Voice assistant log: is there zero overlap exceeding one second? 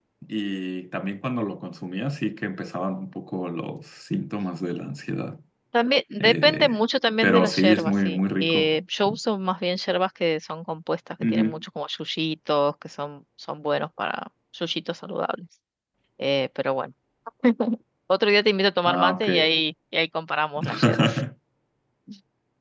No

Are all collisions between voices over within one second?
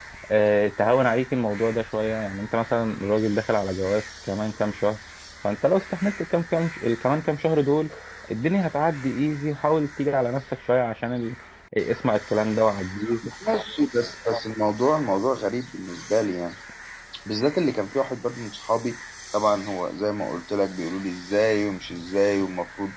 Yes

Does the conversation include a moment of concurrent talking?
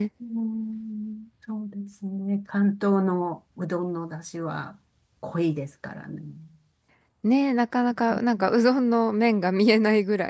No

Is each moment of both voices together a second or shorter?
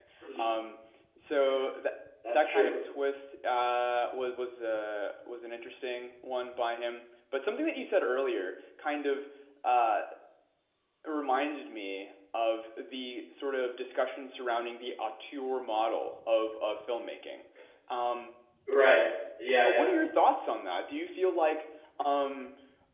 Yes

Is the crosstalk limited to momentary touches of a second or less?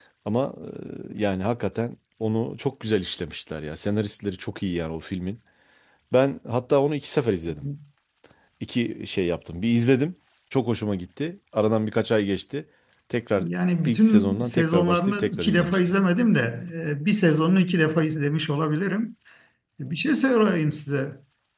No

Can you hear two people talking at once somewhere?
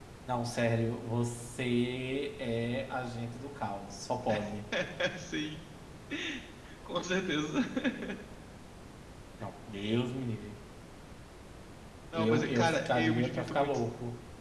Yes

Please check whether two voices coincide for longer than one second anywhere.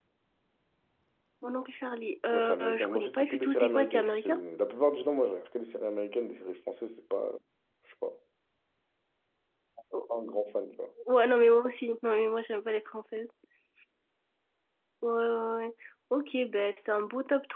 Yes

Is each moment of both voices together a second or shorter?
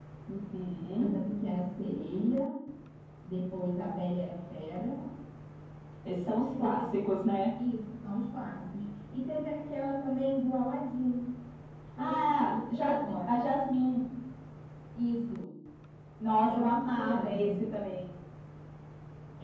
No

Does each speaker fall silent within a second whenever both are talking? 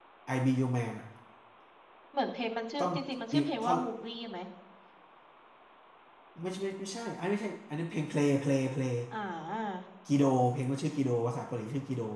Yes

